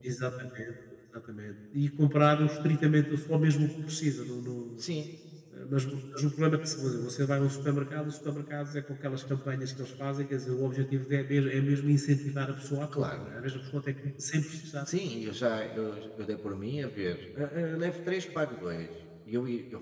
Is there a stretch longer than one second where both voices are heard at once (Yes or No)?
No